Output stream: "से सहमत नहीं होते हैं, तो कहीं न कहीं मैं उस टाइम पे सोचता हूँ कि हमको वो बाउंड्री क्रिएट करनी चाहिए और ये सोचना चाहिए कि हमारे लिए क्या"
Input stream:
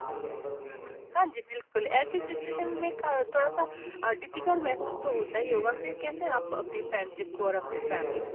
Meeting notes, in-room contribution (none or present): present